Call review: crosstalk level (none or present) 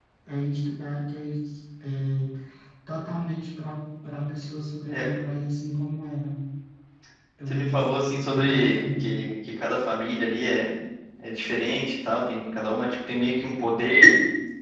present